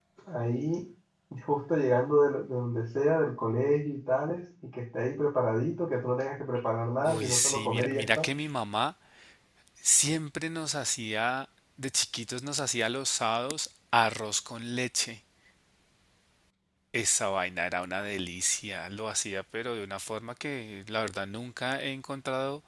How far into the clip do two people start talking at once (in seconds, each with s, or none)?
7.0 s